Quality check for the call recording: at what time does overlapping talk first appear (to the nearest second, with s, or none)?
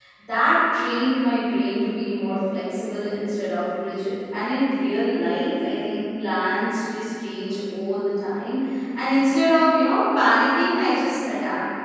none